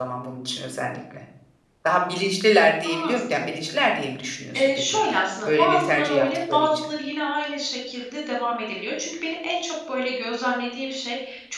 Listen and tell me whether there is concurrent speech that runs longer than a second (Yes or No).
Yes